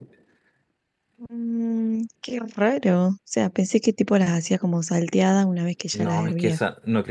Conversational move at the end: taking over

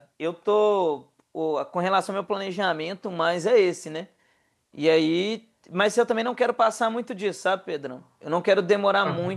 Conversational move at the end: listening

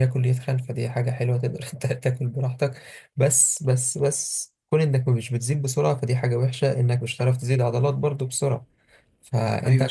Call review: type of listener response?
listening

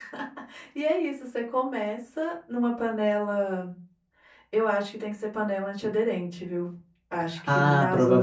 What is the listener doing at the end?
taking over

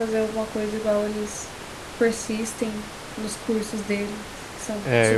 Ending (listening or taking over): taking over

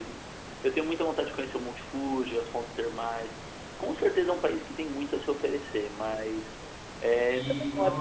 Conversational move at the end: taking over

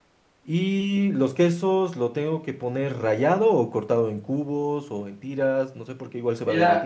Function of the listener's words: taking over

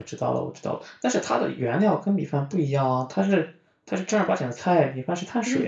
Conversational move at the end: taking over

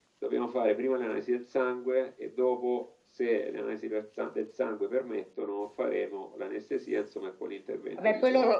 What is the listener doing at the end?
taking over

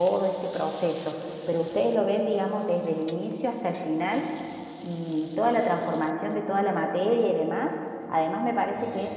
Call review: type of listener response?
listening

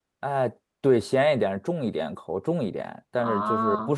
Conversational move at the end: listening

